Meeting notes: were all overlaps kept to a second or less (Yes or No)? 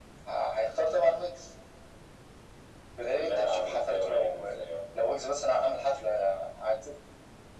No